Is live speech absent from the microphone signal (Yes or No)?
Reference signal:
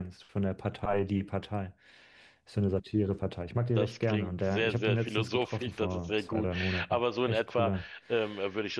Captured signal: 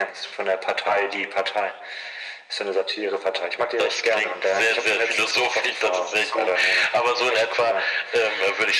Yes